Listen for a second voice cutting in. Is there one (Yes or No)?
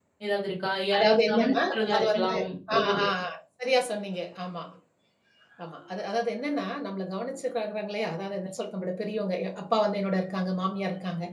Yes